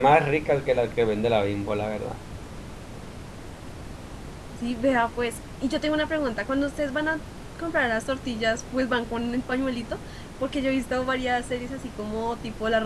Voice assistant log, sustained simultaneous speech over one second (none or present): none